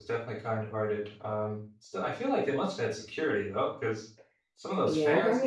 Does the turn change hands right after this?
Yes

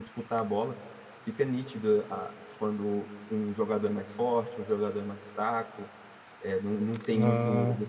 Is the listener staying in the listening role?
Yes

